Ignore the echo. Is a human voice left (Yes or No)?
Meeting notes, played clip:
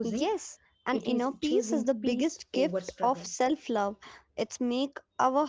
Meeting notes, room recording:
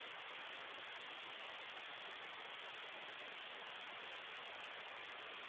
No